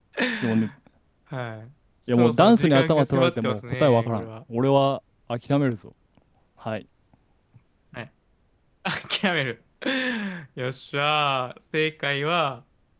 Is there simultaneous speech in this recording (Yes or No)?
Yes